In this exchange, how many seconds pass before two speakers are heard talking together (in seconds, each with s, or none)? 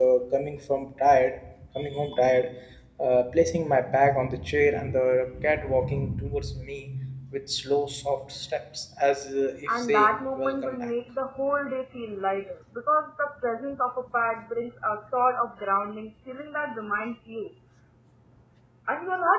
9.7 s